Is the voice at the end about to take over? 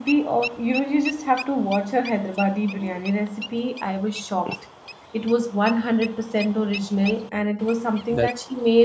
No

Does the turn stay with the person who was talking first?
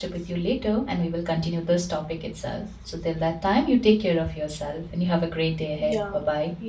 No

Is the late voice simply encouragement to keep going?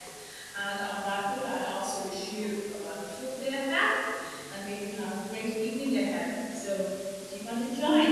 No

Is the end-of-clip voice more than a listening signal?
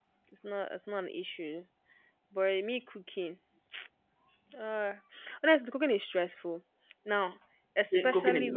Yes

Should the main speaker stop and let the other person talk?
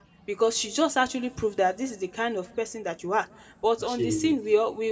No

